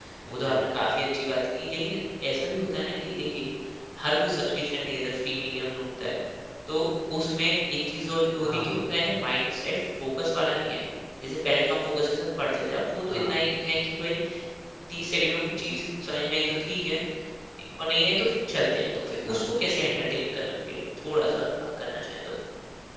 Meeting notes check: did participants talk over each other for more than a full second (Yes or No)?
No